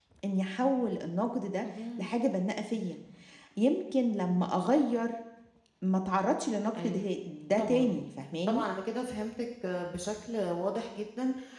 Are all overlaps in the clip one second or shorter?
Yes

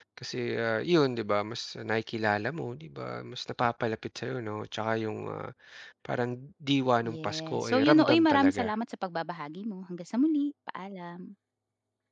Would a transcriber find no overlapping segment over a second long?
No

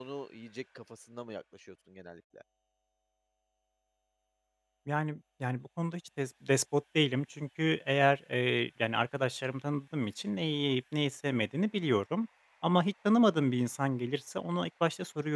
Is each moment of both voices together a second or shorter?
Yes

